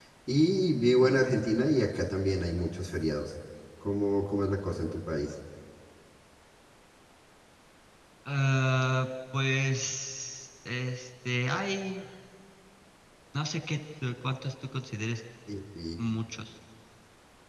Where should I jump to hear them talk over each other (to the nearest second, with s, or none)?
none